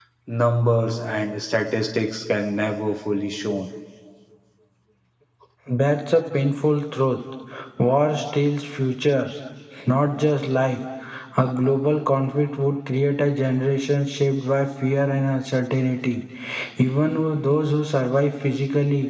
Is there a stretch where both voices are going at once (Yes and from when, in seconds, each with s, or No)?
No